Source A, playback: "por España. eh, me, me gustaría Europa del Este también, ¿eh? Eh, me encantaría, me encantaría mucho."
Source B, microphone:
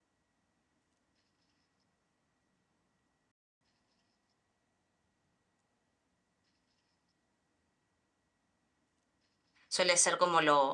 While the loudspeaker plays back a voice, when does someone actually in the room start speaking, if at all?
9.7 s

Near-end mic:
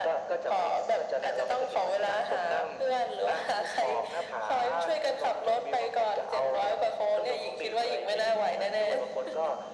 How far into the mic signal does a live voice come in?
none

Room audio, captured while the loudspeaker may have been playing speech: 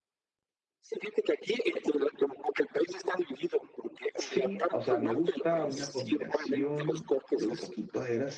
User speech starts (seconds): 4.2 s

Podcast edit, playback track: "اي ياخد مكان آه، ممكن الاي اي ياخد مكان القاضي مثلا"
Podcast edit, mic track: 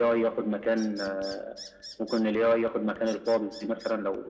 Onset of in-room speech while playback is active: none

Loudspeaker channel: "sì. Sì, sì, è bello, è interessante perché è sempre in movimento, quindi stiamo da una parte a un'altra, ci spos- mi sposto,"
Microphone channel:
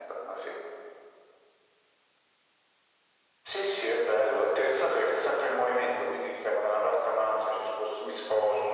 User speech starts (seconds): none

